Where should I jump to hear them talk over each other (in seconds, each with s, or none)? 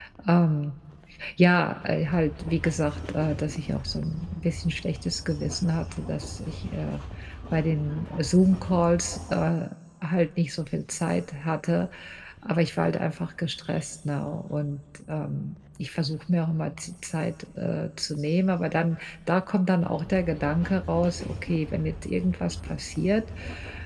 none